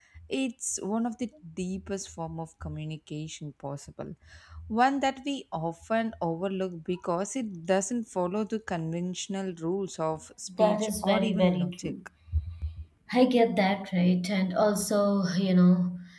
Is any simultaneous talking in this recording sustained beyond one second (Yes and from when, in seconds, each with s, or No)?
Yes, from 10.5 s